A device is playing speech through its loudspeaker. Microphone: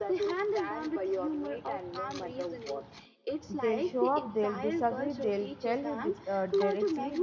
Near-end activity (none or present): present